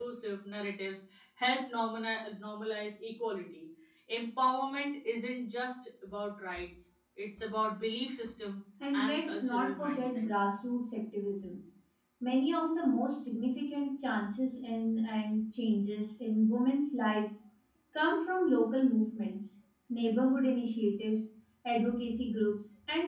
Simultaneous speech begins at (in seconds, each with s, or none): 8.8 s